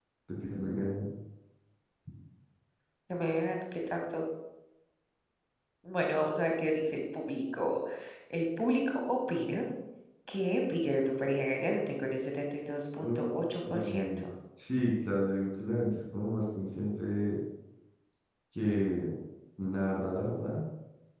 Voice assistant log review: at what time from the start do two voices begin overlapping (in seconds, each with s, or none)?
13.0 s